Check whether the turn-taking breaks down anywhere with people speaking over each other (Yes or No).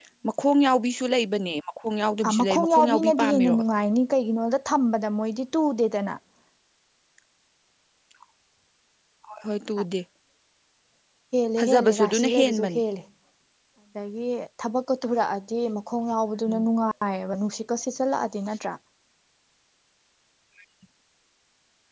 Yes